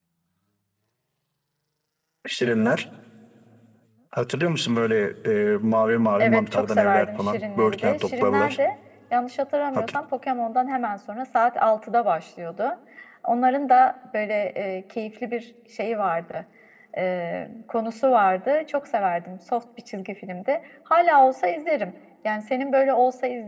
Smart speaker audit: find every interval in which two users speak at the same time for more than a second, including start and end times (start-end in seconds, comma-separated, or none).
6.2-8.6